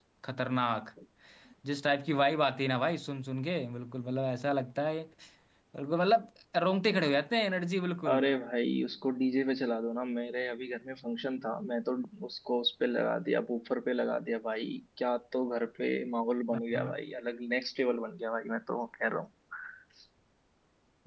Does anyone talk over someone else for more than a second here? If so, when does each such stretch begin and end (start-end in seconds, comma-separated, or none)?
none